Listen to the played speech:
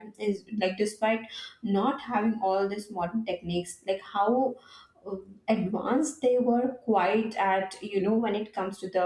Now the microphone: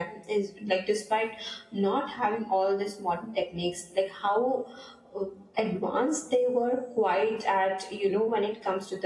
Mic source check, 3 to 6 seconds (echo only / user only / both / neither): echo only